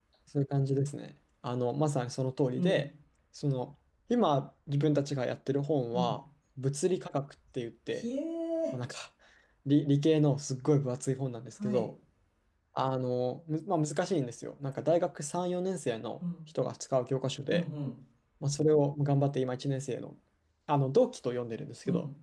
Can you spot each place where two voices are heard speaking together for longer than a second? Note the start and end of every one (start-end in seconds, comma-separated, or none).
none